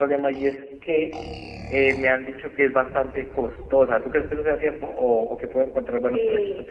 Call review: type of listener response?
taking over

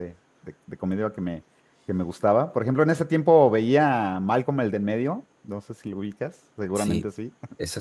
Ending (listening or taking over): taking over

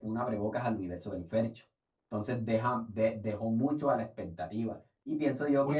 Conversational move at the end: taking over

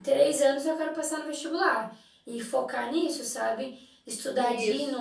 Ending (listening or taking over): listening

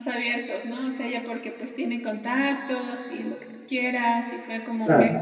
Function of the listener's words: listening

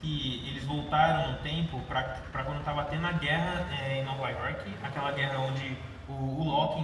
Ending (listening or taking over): listening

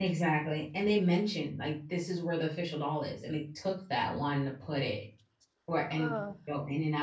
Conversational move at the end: listening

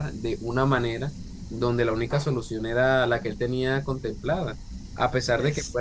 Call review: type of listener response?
listening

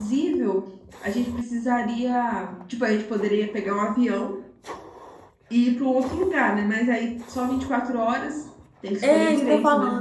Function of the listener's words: taking over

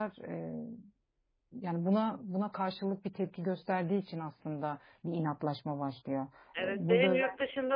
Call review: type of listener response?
taking over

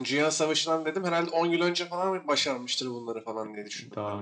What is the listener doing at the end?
taking over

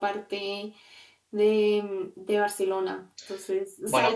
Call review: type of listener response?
listening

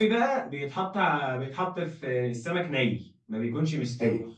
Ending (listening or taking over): listening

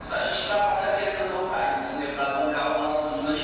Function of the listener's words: taking over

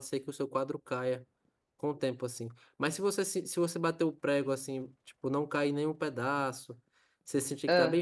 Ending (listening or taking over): listening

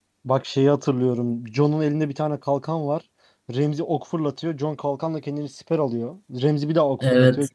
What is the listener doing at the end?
listening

